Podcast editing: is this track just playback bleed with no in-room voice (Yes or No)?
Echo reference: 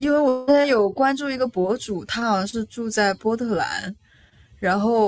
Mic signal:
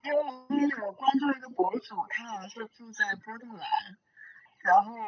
Yes